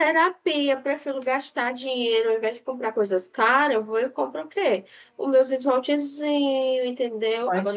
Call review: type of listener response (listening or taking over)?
taking over